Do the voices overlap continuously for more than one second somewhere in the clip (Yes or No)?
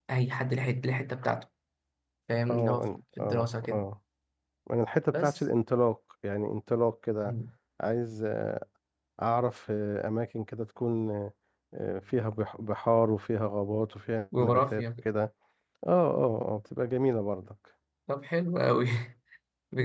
Yes